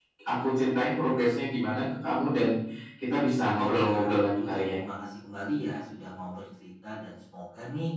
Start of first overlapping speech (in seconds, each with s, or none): 3.6 s